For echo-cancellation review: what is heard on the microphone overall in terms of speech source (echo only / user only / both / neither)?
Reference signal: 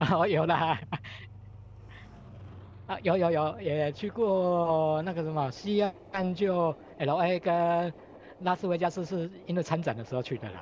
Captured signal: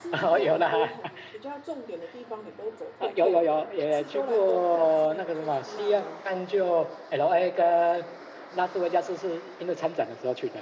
both